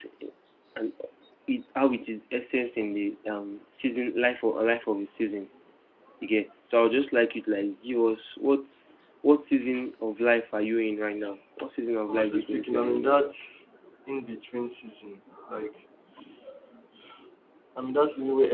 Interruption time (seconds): 12.1 s

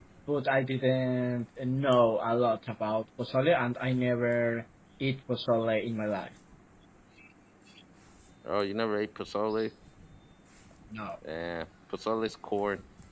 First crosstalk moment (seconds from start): none

